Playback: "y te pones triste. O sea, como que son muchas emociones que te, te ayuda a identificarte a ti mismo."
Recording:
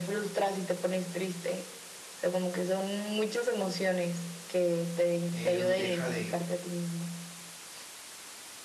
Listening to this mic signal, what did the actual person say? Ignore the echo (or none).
él deja de